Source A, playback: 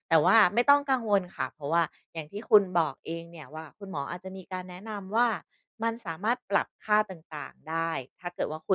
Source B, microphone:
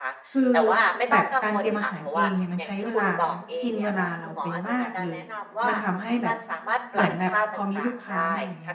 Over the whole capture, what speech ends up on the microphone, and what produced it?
both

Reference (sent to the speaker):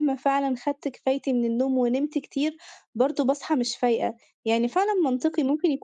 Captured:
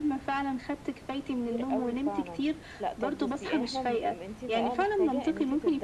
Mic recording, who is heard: both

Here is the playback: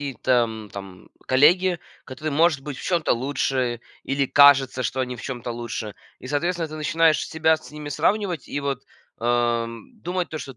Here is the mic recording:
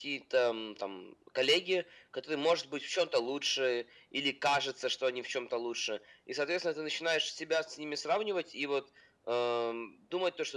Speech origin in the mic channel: echo only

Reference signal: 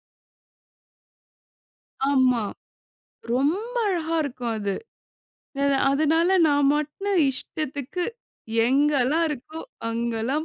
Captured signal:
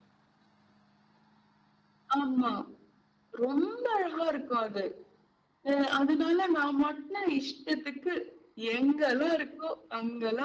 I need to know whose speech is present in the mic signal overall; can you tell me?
echo only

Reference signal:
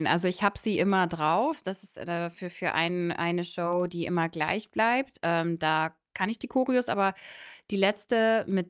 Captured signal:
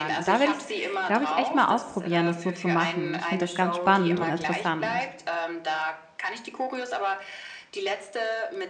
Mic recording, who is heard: both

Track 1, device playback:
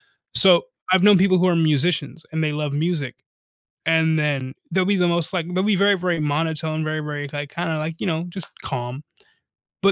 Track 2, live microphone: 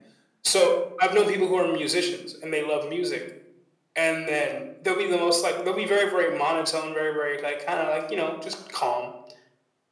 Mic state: echo only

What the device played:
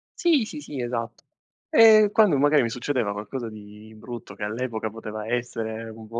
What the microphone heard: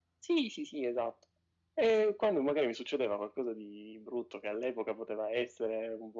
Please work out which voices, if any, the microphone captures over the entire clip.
echo only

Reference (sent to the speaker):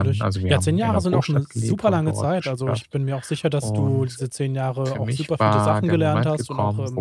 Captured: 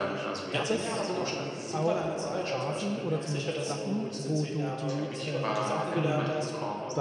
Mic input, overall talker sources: both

